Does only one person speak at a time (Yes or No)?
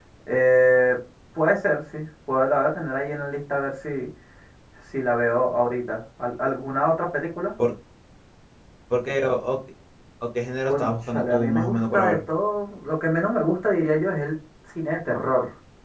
No